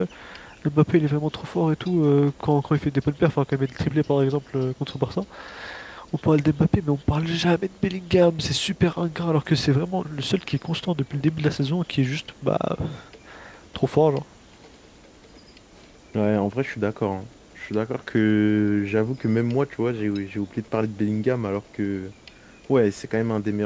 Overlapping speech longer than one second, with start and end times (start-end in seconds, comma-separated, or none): none